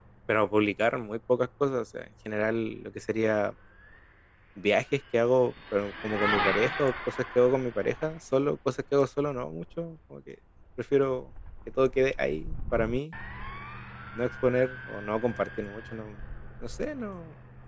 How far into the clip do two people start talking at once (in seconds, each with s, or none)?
none